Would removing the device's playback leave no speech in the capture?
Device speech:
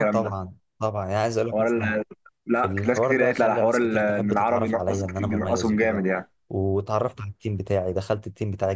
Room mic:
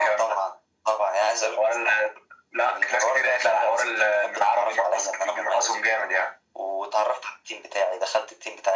Yes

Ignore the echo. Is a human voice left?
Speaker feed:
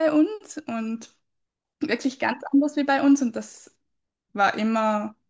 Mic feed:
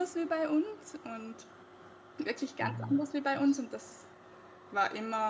Yes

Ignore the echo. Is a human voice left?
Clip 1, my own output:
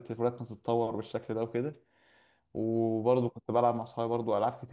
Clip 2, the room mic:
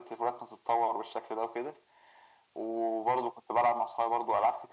No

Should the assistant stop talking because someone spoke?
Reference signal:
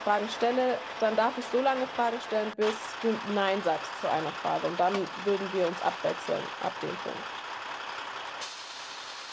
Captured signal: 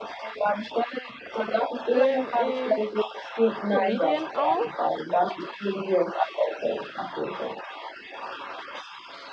Yes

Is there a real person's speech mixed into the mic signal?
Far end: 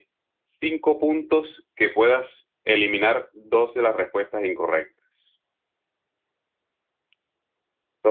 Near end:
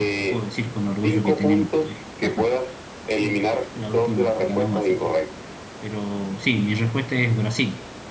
Yes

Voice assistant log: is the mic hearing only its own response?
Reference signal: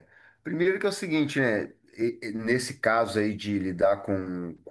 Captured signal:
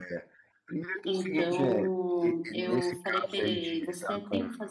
No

